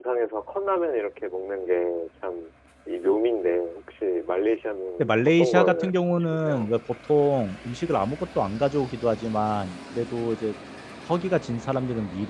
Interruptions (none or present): present